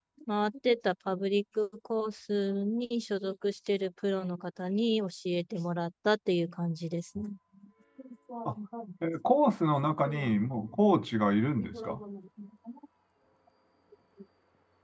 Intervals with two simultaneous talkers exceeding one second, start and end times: none

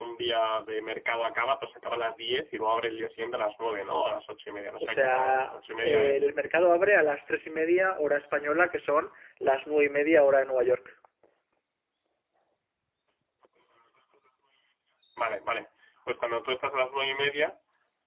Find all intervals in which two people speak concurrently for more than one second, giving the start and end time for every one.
4.8-6.2

